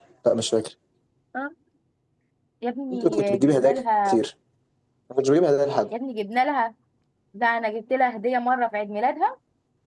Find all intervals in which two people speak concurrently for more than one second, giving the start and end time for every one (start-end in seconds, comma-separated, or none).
2.9-4.2